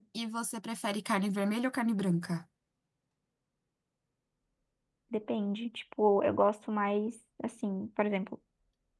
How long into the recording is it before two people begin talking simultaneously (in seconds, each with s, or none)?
none